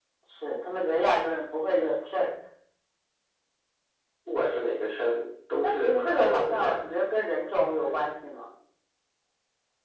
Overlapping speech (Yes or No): Yes